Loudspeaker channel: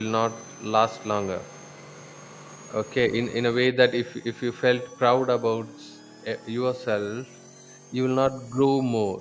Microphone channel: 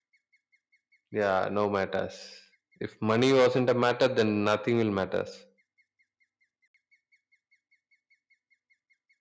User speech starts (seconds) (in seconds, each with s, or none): 1.1 s